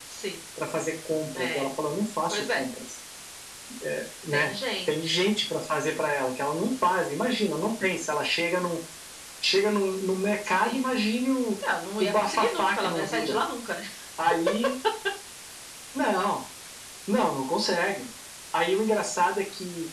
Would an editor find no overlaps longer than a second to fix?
No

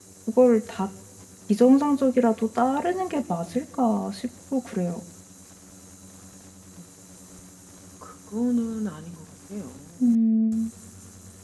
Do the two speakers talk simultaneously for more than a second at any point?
No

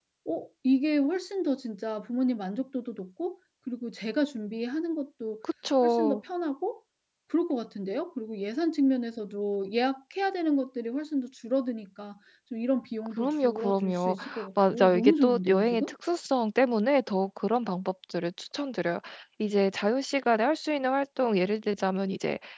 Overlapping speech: Yes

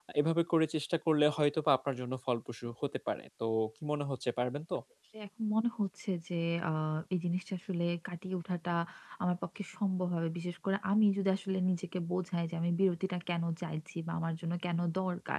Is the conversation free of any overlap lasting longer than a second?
Yes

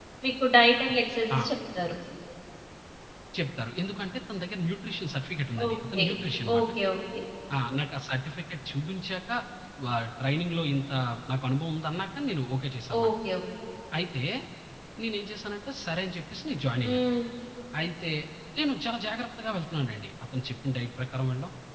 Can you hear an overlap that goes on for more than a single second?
No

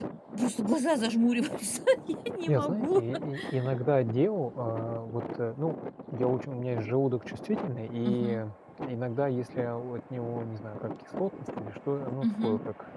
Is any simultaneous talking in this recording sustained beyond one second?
No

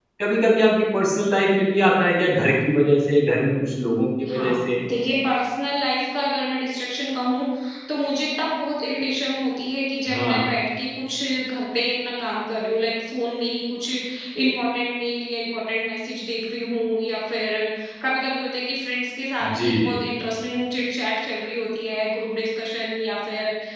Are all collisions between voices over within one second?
Yes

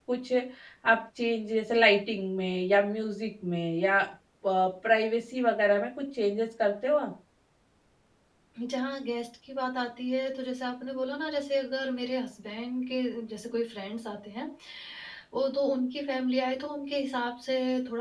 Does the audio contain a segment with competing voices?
No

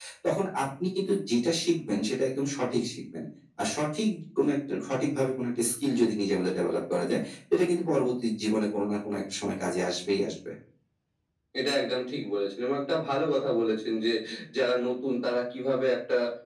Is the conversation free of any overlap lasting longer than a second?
Yes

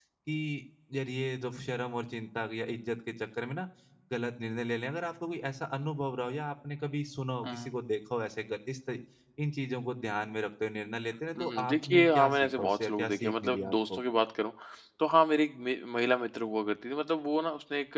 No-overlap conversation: No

